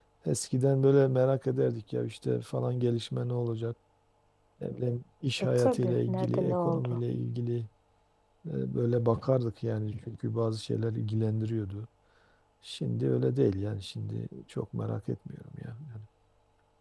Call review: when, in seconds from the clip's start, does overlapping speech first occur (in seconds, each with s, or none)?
5.4 s